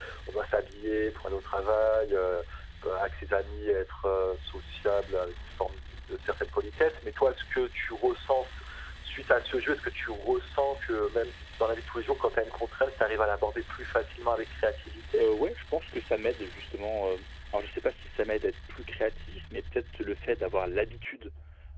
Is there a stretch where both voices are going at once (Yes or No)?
No